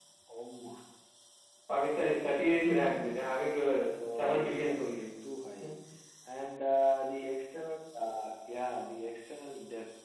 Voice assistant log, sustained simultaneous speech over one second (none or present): present